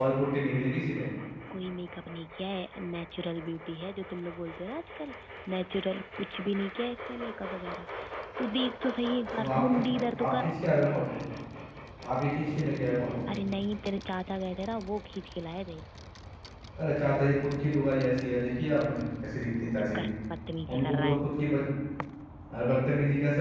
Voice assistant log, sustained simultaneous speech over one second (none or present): none